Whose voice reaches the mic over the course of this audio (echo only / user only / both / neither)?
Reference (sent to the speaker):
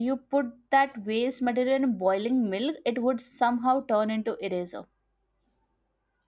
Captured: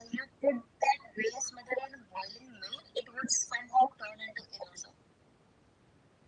echo only